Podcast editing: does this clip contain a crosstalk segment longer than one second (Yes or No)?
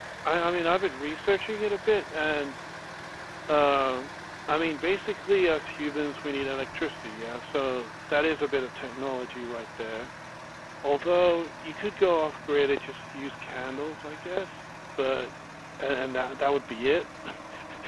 No